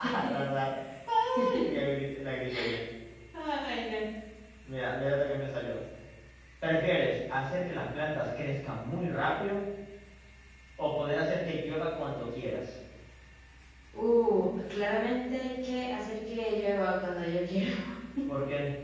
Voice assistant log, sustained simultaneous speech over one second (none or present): none